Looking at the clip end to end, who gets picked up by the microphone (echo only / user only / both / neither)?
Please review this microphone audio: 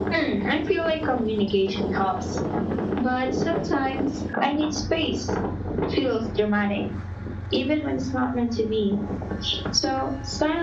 echo only